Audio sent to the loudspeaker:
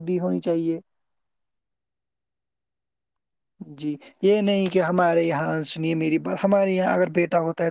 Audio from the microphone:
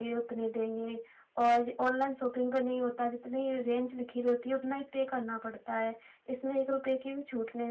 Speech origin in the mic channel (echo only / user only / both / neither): user only